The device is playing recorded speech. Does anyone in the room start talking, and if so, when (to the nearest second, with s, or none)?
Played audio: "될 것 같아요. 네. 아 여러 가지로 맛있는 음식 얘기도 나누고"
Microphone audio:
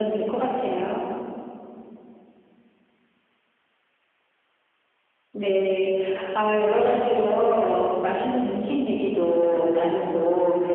none